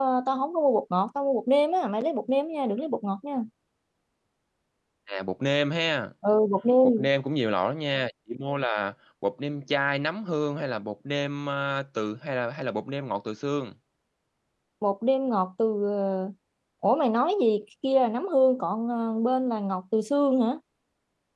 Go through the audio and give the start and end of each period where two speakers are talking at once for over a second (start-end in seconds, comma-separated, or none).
none